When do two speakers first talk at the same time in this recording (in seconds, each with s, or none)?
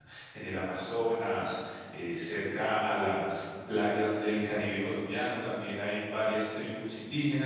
none